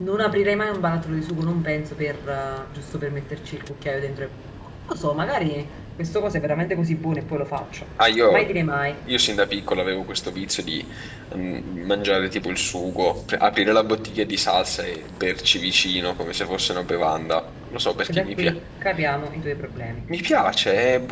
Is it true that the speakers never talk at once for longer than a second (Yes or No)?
Yes